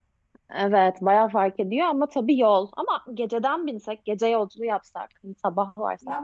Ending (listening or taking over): taking over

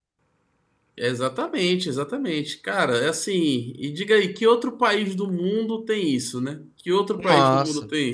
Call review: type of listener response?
taking over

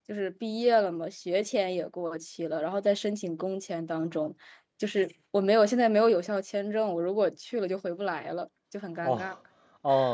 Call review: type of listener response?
taking over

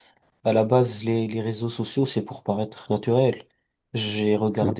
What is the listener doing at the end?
listening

